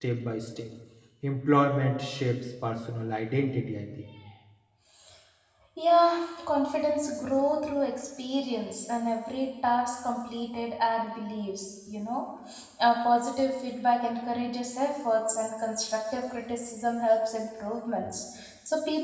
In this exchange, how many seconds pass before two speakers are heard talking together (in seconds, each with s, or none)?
none